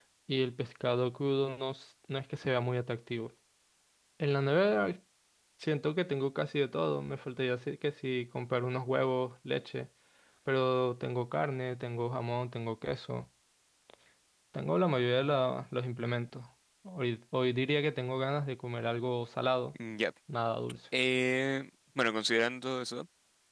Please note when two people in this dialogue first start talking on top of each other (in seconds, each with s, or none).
none